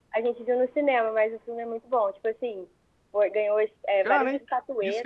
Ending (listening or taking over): taking over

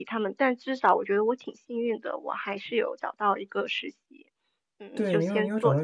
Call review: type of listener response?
taking over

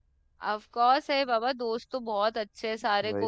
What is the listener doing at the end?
listening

